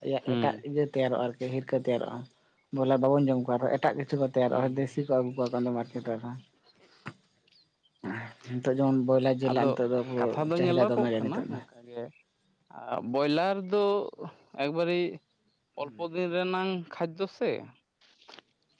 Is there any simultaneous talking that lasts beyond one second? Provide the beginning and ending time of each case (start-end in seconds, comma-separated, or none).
10.2-11.6